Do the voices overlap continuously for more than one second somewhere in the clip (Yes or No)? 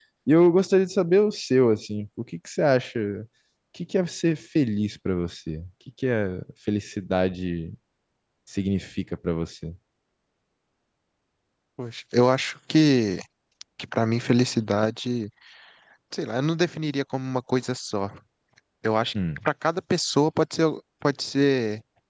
No